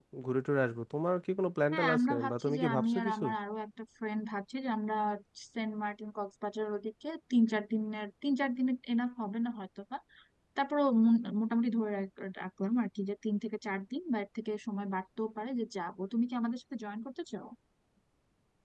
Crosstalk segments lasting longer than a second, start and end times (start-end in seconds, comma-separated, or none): 1.7-3.2